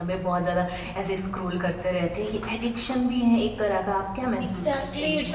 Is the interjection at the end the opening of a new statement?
Yes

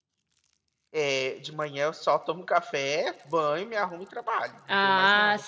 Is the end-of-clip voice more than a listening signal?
Yes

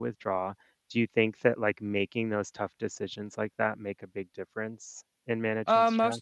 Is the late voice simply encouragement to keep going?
No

